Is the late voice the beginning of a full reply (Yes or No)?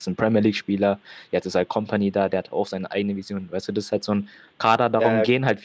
No